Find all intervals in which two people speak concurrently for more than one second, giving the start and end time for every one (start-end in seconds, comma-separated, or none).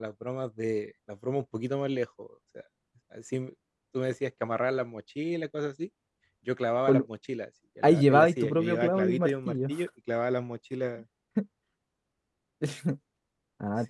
7.8-9.5